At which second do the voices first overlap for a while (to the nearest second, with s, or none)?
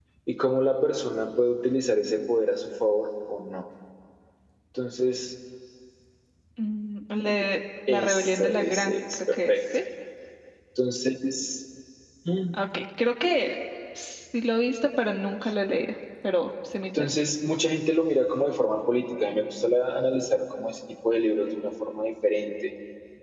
8 s